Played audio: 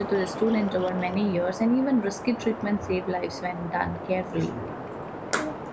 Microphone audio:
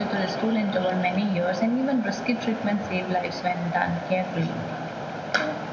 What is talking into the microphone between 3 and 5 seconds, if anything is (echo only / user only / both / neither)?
echo only